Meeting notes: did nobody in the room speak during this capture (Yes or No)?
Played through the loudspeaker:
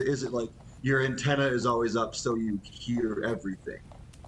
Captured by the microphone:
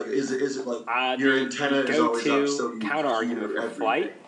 No